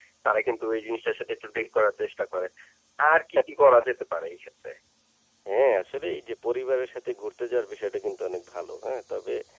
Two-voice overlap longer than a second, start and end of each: none

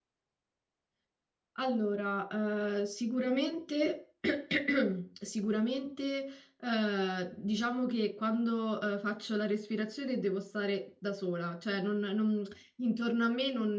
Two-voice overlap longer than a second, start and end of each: none

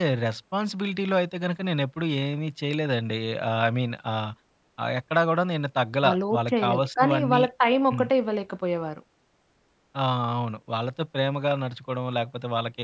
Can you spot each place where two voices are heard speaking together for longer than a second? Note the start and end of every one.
6.1-7.4

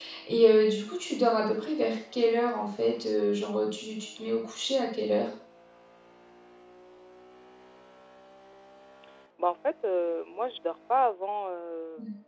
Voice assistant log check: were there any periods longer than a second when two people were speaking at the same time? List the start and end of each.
none

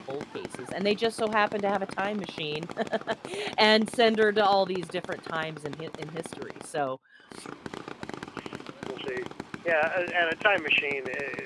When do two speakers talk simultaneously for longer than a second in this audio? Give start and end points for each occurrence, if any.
none

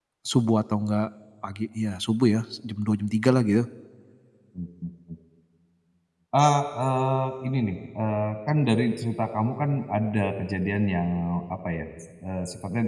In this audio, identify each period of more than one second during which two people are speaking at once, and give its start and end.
none

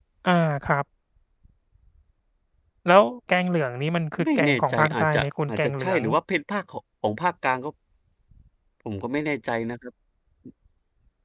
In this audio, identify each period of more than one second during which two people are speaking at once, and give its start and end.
4.2-6.0

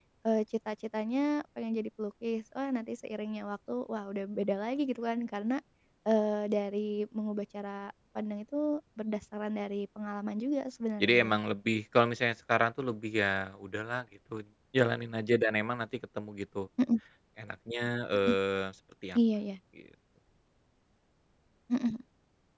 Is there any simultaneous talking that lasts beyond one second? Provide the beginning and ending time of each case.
none

